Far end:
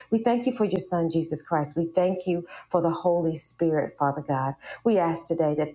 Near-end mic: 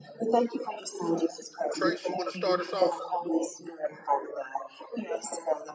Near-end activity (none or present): present